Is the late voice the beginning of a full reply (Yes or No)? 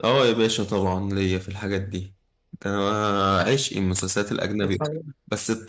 No